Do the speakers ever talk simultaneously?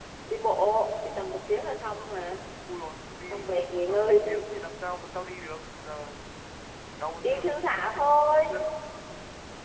Yes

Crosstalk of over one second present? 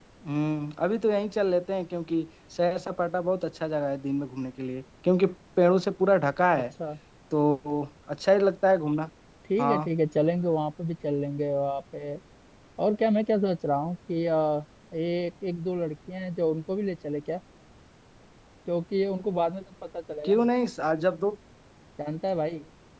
No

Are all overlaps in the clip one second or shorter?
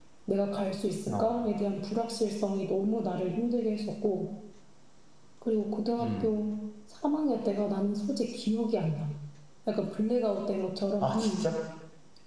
Yes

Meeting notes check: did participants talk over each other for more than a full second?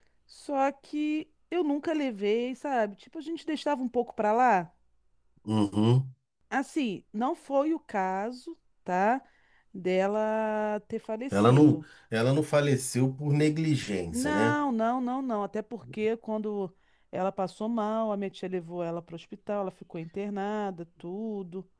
No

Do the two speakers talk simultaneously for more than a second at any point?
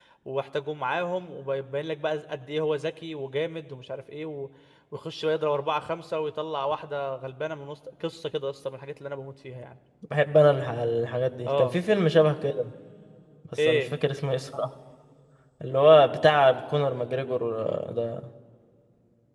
No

